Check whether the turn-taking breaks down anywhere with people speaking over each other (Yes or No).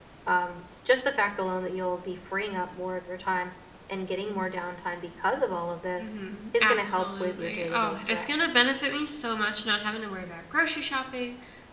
Yes